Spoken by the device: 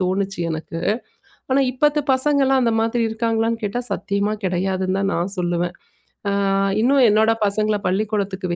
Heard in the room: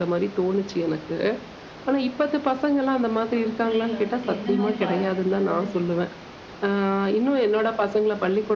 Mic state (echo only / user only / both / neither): both